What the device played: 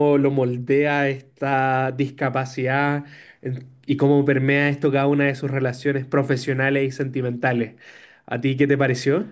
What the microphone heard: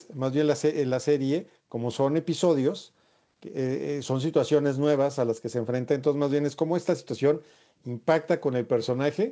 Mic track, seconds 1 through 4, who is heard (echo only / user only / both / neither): user only